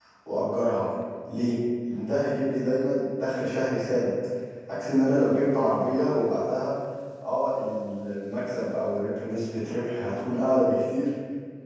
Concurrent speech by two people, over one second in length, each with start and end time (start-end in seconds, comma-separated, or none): none